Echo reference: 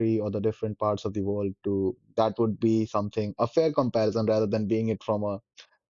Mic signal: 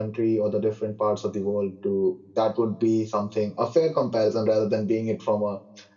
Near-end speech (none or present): none